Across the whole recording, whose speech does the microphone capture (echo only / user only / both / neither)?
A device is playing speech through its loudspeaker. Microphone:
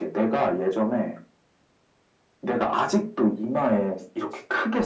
echo only